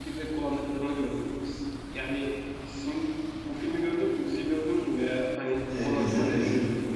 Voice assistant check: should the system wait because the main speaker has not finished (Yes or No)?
No